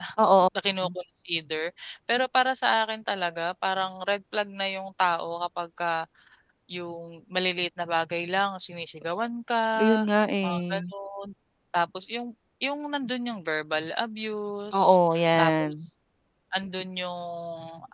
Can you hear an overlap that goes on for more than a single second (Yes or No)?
No